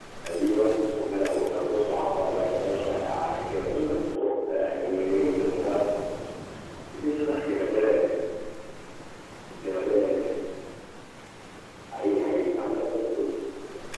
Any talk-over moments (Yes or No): Yes